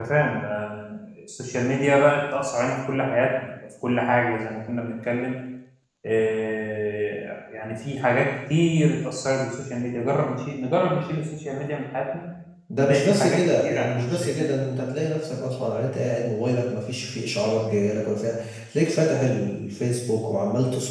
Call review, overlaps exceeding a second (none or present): present